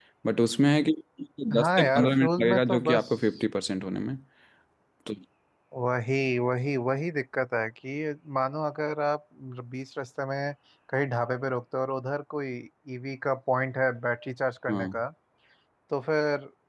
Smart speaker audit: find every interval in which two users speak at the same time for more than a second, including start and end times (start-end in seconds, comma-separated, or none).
1.6-3.1